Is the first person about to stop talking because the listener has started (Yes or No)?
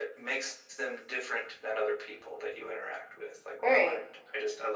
No